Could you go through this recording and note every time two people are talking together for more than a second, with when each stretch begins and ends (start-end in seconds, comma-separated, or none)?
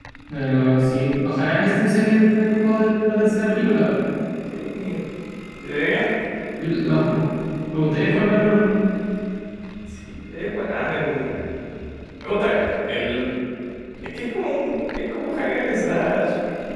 none